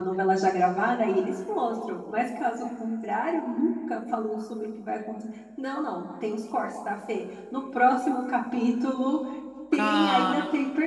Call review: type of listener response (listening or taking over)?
listening